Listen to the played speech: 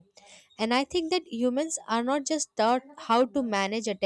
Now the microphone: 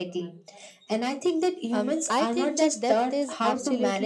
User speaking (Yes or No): Yes